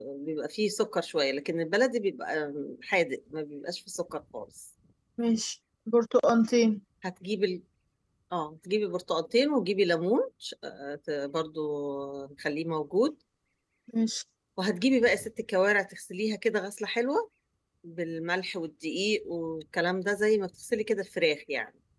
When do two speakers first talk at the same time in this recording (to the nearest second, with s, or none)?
none